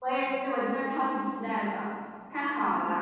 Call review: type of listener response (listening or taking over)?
listening